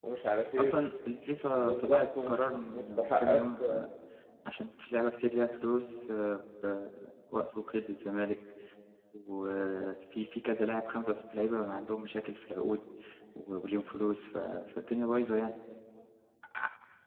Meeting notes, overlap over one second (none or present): present